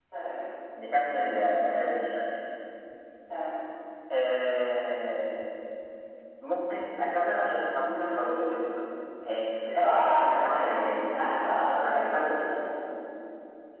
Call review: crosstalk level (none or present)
present